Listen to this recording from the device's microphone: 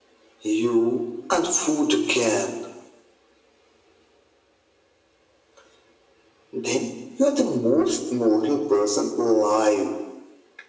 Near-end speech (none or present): none